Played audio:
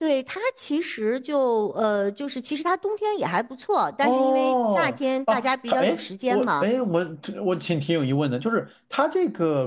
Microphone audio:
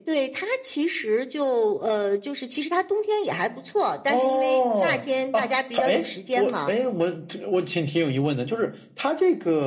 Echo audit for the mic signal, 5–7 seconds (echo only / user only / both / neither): echo only